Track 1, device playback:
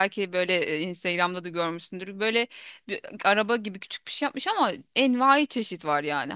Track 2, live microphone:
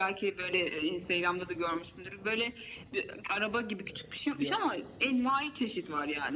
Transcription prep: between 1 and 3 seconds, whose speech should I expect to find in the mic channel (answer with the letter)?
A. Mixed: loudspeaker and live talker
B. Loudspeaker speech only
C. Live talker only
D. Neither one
B